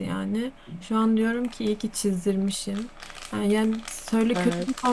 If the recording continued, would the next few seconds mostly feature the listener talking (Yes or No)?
No